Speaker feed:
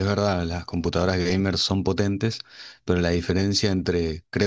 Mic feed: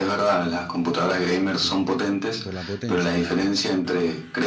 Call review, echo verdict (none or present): present